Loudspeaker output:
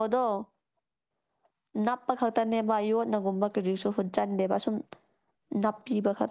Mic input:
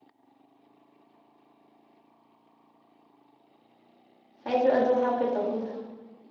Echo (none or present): none